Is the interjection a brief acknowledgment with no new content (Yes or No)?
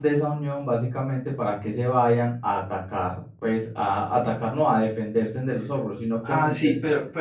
No